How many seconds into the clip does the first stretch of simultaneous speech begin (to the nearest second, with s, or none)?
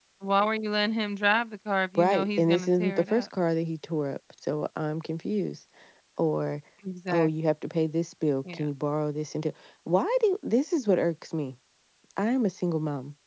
2 s